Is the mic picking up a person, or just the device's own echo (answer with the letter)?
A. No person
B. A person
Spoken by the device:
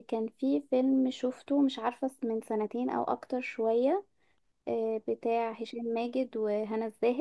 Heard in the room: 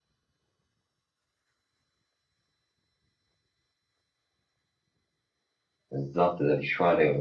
B